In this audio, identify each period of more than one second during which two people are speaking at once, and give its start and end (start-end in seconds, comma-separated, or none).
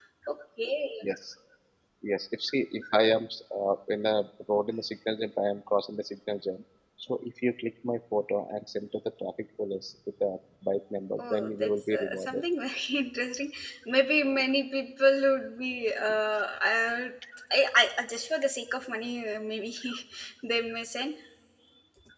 11.2-12.4